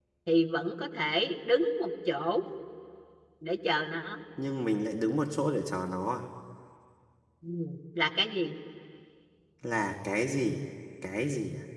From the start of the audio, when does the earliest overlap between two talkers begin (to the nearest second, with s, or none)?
none